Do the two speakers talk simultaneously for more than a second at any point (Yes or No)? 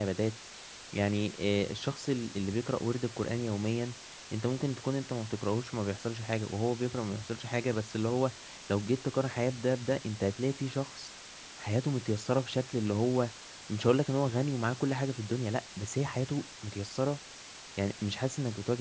No